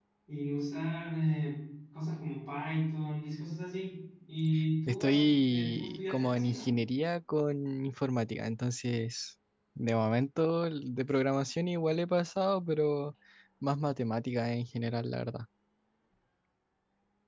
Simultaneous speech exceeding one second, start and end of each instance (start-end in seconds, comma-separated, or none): 4.9-6.7